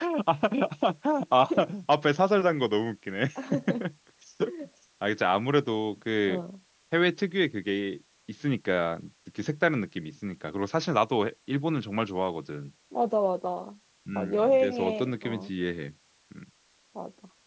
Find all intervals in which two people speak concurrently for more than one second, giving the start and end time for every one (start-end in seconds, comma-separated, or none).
14.2-15.5